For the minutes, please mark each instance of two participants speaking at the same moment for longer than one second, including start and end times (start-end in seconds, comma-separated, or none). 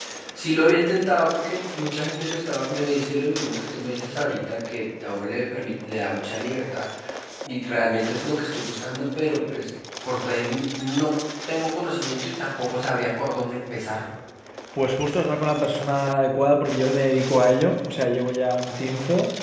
none